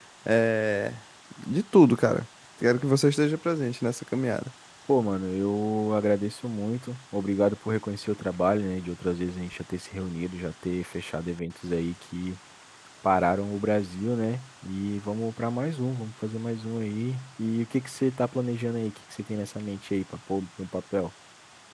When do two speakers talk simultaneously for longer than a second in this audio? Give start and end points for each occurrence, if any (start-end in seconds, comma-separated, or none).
none